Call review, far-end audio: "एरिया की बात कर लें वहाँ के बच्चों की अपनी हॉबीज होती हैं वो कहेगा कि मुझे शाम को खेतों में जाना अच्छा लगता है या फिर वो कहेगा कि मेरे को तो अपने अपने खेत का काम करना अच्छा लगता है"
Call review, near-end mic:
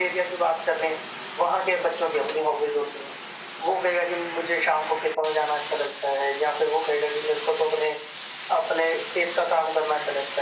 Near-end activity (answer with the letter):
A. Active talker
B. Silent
B